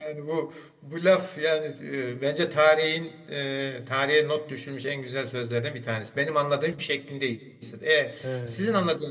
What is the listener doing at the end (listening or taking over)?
listening